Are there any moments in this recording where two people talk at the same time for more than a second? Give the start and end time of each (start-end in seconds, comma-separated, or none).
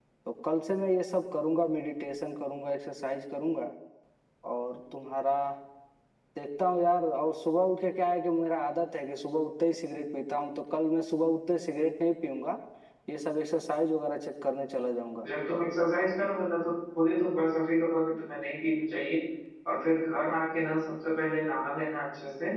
none